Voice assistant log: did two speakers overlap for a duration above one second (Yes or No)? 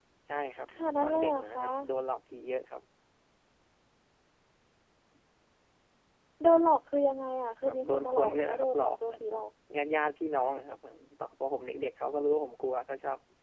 Yes